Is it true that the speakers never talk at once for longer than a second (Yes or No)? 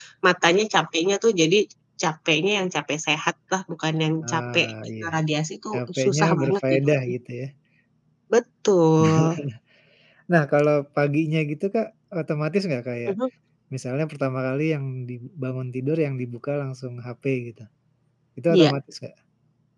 No